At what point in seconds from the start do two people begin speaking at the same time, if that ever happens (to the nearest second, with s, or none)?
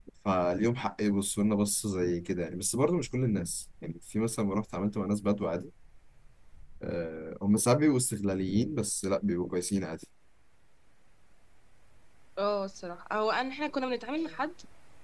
none